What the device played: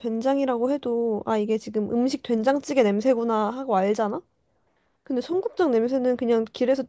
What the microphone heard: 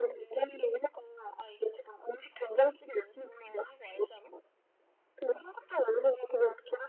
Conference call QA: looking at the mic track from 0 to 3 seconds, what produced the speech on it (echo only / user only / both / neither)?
echo only